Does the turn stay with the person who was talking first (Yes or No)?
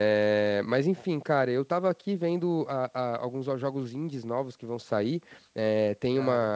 Yes